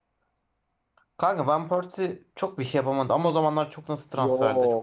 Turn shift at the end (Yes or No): Yes